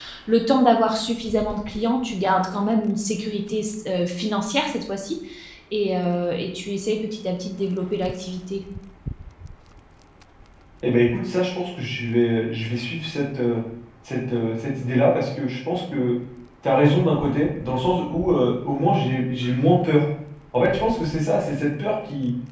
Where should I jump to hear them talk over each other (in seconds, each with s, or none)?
none